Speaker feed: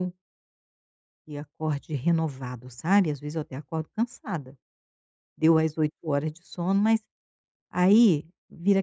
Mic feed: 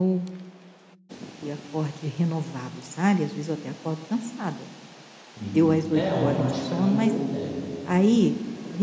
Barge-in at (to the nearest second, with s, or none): 5 s